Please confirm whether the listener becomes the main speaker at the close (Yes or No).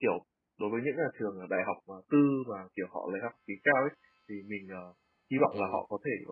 No